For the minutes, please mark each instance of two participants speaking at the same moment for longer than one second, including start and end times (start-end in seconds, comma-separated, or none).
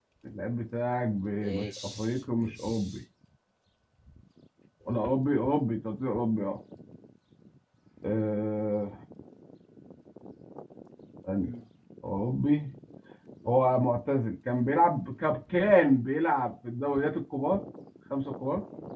1.3-3.0